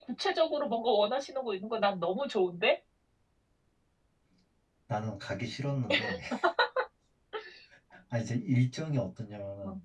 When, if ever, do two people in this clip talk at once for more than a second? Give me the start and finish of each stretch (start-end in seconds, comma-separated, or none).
none